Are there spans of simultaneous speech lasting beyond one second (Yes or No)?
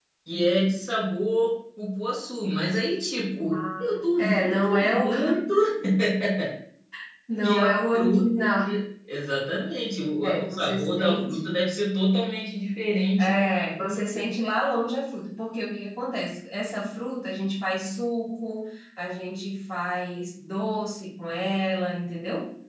Yes